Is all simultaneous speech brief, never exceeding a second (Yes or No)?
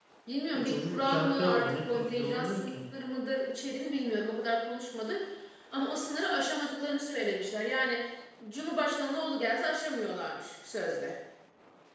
No